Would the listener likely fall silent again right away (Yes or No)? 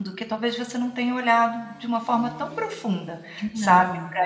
Yes